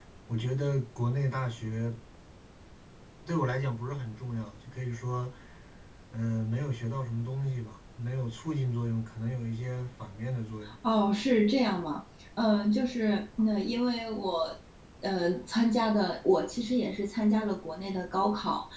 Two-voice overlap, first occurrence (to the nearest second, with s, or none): none